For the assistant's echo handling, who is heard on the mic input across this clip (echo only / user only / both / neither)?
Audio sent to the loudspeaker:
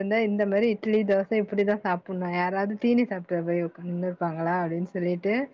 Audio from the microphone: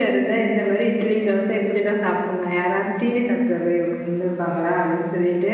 echo only